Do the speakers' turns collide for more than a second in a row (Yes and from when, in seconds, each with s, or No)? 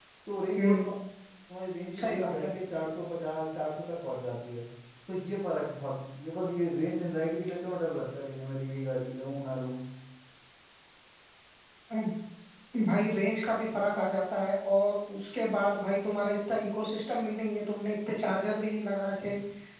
No